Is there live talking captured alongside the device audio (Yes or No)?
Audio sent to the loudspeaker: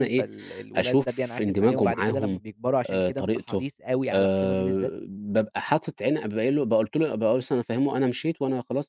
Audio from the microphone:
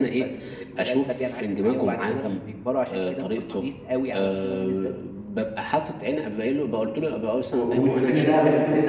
Yes